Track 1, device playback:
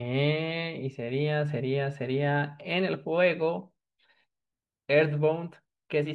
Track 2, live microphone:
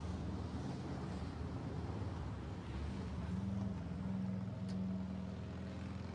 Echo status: none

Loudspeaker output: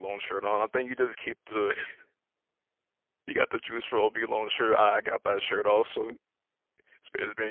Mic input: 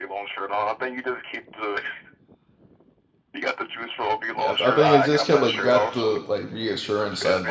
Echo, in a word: present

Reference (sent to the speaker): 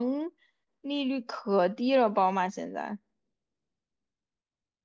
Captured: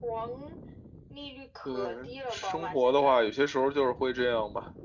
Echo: present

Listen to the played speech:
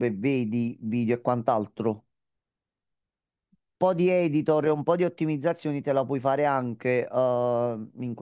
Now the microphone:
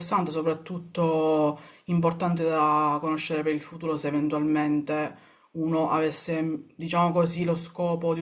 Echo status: none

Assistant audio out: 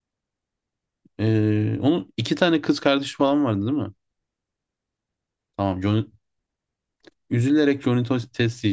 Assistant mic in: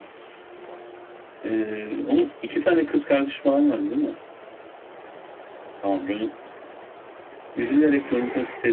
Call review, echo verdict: present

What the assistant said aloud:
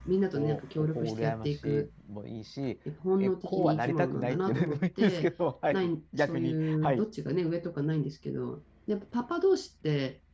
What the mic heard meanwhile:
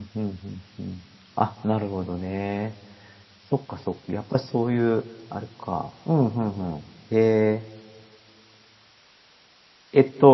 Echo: none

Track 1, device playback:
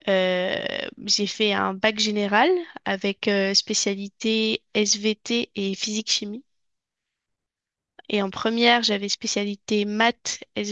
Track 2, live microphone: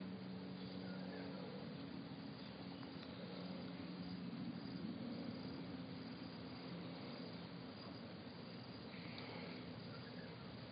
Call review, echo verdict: none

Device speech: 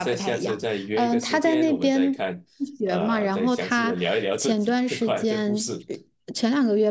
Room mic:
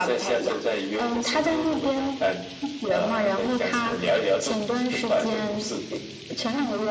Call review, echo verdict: present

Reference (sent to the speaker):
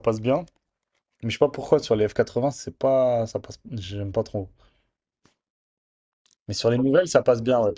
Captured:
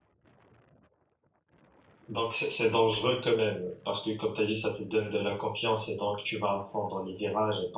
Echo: none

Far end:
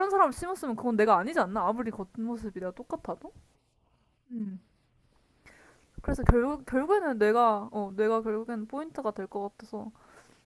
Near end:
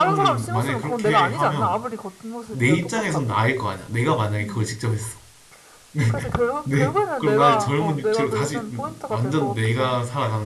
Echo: present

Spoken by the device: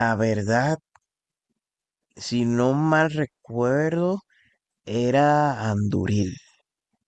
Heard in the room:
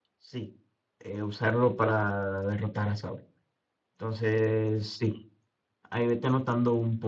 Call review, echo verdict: none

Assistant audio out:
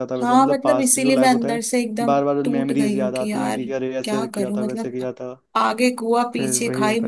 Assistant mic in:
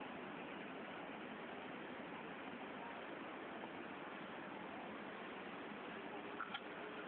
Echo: none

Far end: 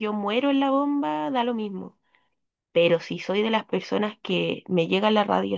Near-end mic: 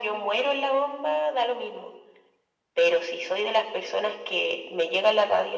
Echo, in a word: present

